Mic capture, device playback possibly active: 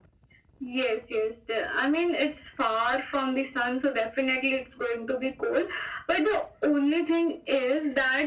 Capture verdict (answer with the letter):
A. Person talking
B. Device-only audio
B